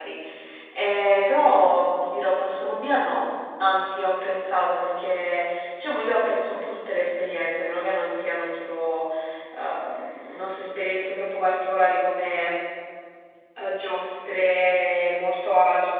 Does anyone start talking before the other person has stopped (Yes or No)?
No